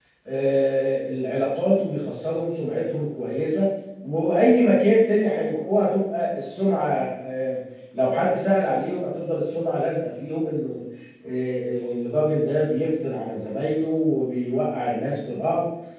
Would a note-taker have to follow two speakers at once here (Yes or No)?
No